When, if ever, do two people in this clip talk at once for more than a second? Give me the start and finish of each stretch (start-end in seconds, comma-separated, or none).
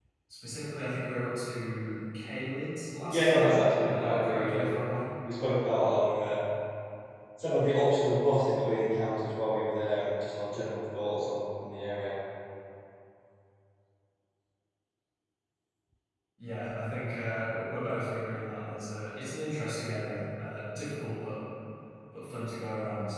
3.1-4.7